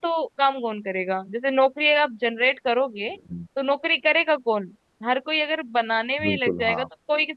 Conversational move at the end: listening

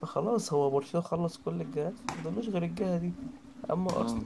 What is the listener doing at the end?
listening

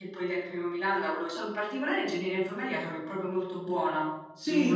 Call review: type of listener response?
taking over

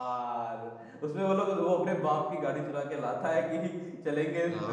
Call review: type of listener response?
taking over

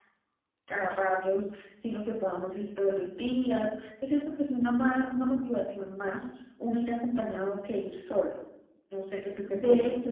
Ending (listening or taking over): taking over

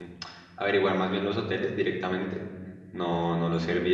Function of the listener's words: listening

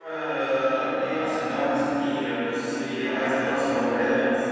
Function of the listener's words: listening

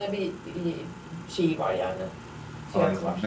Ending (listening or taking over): taking over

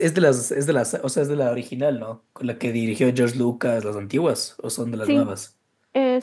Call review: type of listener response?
taking over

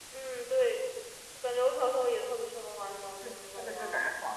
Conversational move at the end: taking over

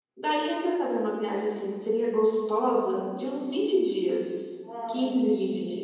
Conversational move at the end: taking over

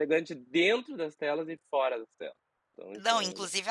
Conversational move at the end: taking over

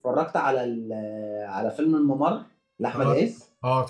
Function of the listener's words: taking over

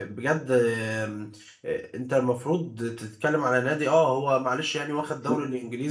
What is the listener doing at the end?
listening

